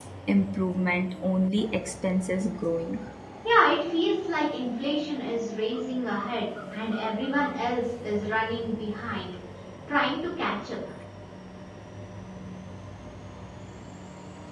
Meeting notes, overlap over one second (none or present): none